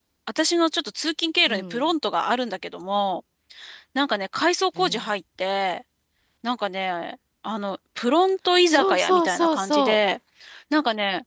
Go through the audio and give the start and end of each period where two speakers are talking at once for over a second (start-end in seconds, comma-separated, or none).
8.7-10.0